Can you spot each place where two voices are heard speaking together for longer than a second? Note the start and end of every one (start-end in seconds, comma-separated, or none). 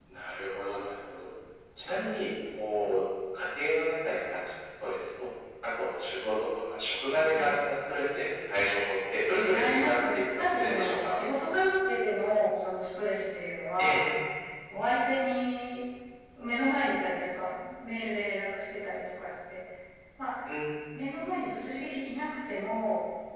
9.4-10.9